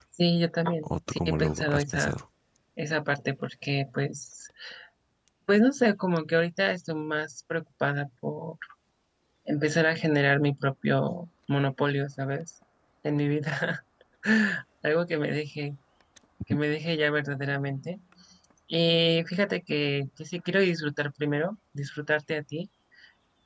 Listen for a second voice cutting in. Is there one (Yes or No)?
Yes